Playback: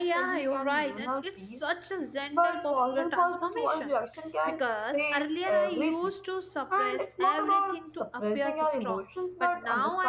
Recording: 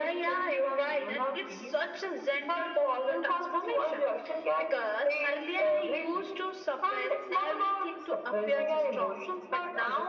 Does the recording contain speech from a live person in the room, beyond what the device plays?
No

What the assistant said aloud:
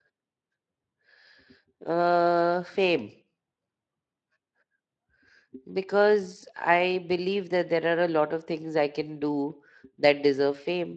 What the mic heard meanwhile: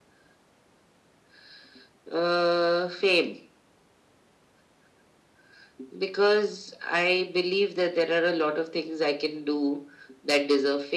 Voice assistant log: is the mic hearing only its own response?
Yes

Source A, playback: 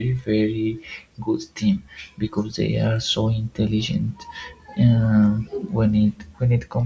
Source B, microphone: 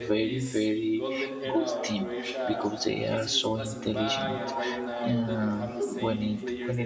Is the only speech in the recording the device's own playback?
No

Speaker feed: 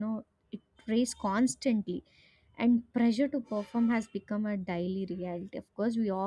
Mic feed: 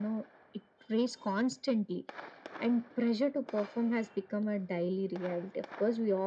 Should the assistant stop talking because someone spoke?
No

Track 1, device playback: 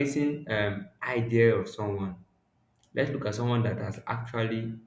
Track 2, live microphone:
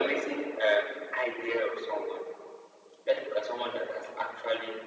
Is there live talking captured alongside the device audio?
No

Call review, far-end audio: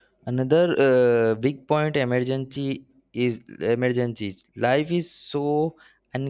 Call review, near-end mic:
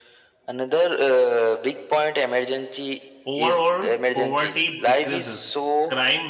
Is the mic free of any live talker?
No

